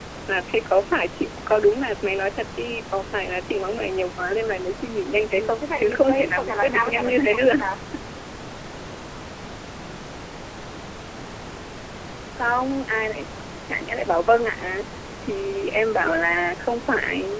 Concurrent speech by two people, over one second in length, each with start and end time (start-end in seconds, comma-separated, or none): 5.4-7.5